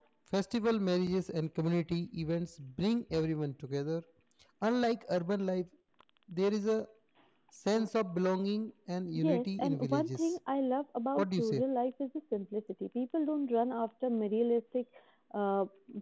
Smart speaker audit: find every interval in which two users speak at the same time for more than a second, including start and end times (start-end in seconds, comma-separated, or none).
9.2-10.4